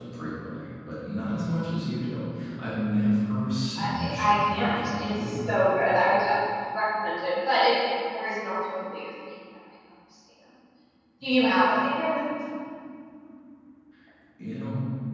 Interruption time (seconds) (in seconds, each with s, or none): 3.8 s